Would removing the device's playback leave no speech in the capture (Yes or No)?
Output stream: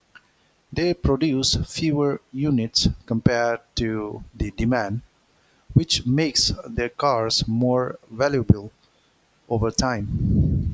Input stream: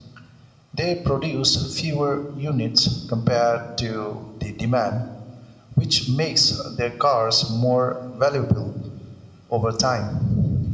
Yes